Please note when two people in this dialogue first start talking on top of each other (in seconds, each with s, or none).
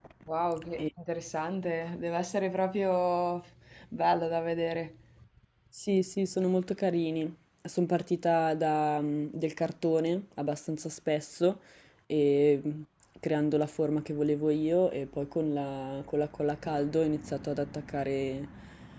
none